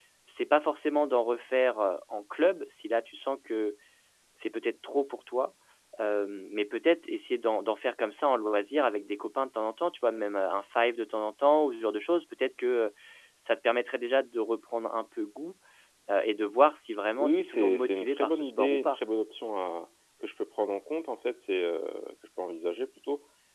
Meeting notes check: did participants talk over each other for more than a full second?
Yes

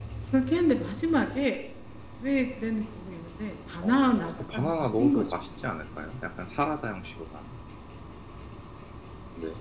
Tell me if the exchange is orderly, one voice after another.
No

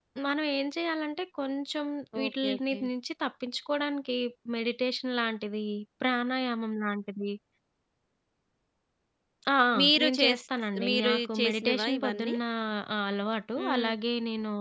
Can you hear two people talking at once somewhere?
Yes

